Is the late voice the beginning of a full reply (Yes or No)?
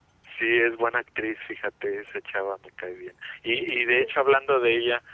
No